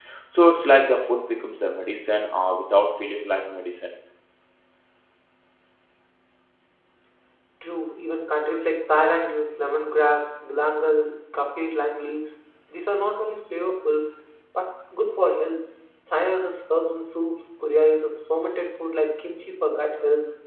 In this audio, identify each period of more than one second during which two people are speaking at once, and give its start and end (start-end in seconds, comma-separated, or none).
none